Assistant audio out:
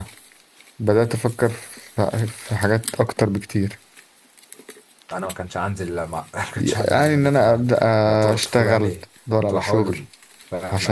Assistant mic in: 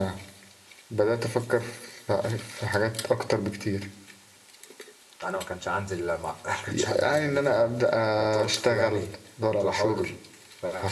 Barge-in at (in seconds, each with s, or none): none